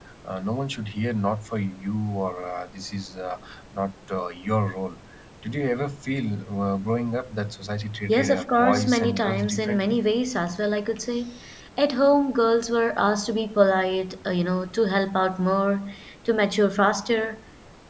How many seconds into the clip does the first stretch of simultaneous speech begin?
8.1 s

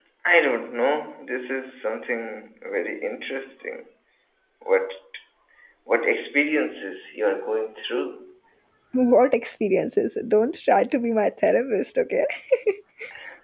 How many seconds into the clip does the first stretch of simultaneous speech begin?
none

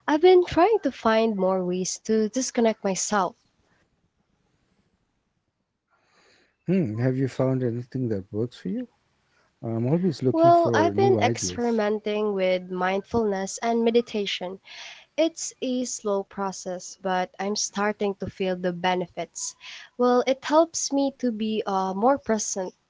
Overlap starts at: 10.3 s

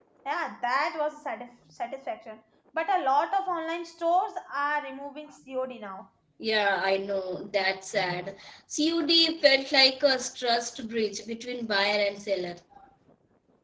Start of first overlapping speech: none

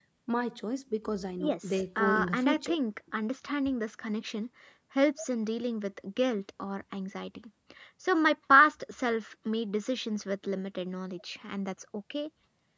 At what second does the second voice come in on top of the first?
1.4 s

